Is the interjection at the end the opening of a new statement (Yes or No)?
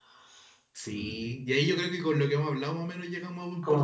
Yes